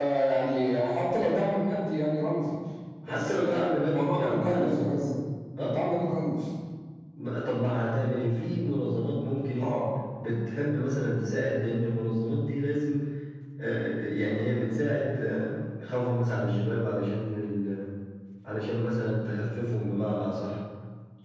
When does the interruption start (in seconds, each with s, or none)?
3.0 s